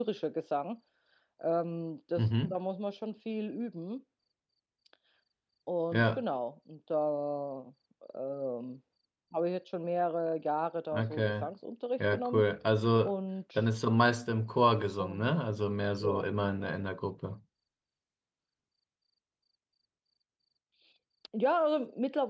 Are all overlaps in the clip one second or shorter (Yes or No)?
Yes